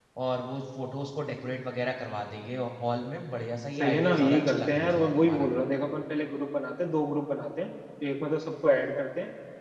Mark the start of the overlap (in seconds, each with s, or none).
3.8 s